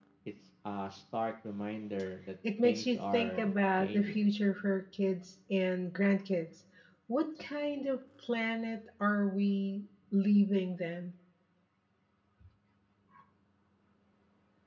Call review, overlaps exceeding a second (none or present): present